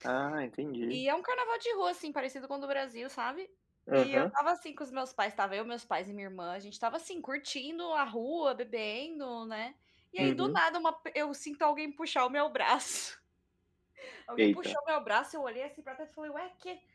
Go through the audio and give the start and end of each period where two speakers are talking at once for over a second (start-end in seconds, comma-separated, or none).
none